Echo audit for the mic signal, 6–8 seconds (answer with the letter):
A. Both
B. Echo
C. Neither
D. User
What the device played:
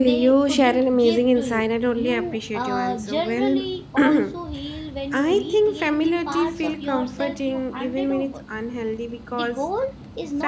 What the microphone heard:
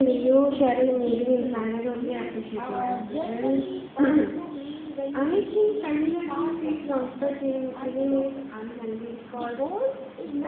B